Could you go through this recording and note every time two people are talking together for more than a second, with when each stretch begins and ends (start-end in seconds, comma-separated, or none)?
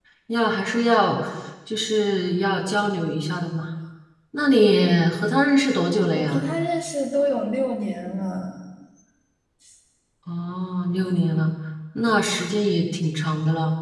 none